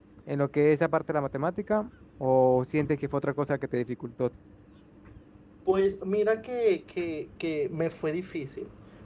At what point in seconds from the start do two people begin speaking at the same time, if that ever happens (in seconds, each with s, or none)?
none